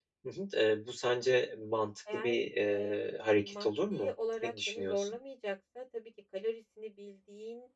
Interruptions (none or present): present